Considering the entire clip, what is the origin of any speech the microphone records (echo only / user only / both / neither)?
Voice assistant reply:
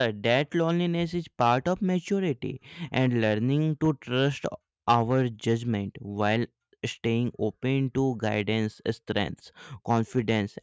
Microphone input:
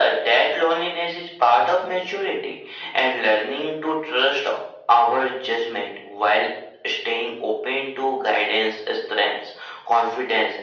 echo only